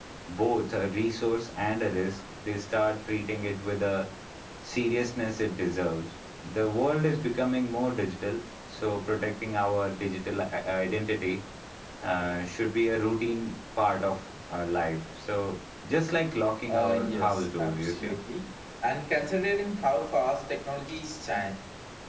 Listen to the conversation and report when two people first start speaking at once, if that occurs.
16.7 s

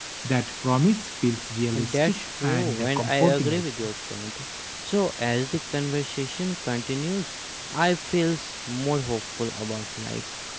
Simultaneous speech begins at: 1.6 s

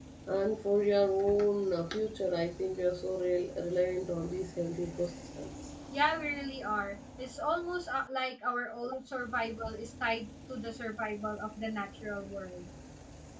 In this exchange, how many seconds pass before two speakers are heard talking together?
none

